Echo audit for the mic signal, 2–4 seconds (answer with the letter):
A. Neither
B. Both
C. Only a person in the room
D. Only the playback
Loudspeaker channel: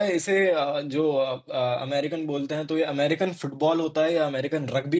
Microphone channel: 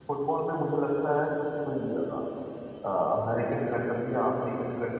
C